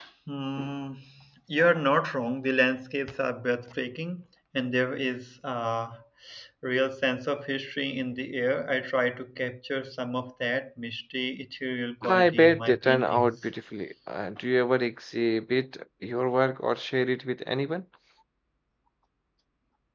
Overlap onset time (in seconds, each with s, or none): 12.0 s